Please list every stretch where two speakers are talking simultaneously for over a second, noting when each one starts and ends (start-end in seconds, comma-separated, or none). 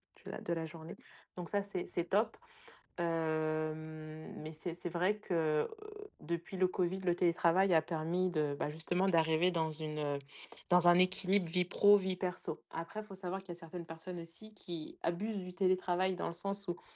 none